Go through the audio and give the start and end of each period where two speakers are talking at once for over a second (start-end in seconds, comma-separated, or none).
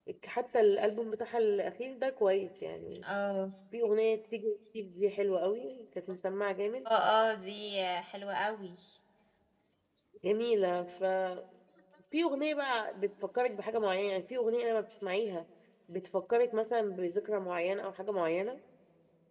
none